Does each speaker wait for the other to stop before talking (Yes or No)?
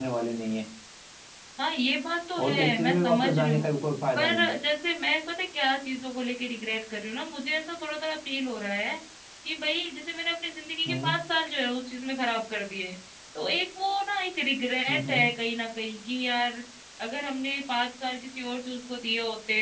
No